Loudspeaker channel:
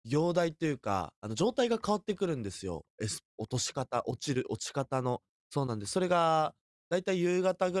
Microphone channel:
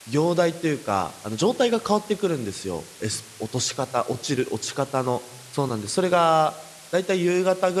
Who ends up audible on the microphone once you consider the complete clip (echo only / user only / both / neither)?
echo only